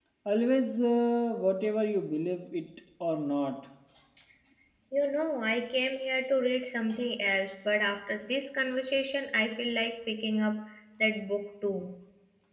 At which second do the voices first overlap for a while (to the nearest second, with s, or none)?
none